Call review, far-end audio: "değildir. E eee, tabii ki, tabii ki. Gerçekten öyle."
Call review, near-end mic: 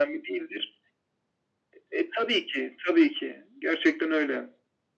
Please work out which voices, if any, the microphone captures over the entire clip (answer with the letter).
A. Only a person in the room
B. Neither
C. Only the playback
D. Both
C